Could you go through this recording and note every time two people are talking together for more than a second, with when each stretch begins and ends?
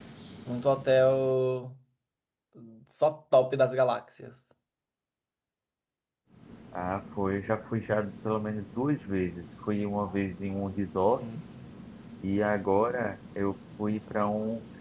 none

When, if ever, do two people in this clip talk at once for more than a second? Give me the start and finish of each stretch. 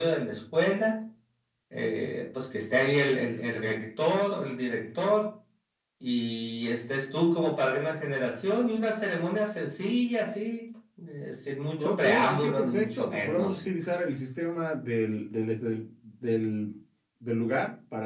11.8-13.6

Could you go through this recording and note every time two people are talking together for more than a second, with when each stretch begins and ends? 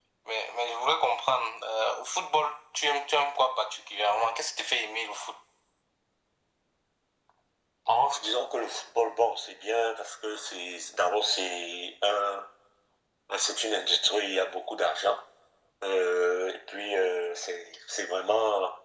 none

